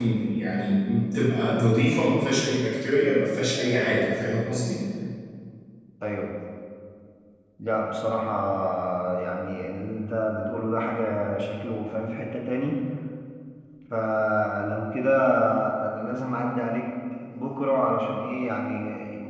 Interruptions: none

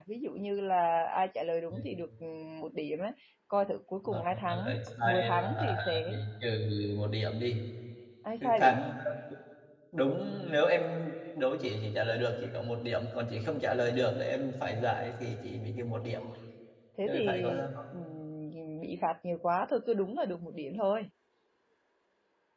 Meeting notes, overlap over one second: present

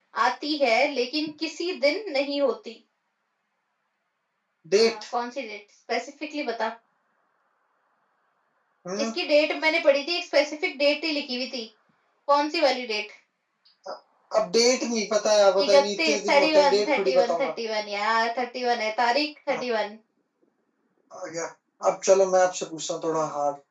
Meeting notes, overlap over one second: present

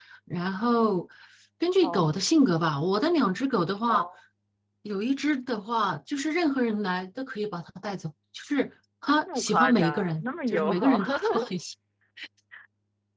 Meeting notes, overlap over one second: present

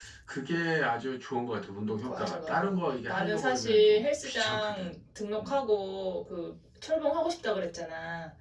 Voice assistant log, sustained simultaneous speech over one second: present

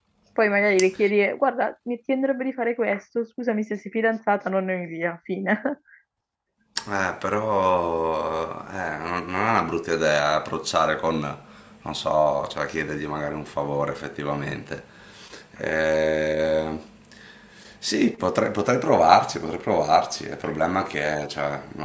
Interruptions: none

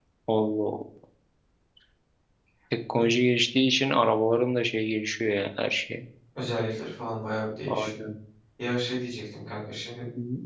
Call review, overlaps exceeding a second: none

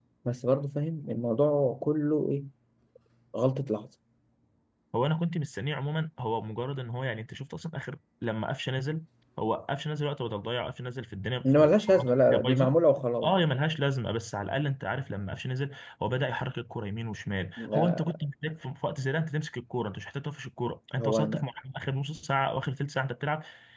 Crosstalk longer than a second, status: present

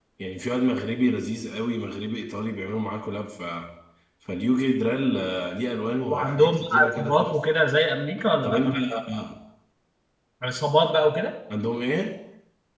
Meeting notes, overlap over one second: present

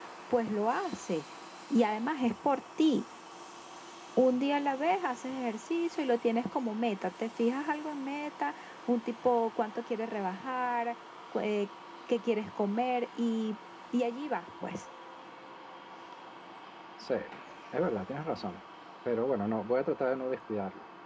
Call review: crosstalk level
none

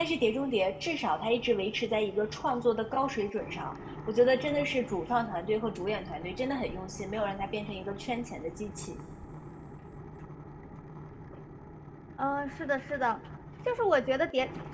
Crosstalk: none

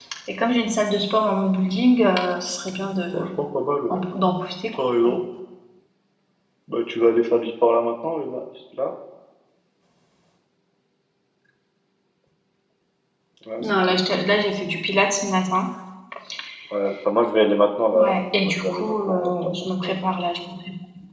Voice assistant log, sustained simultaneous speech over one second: present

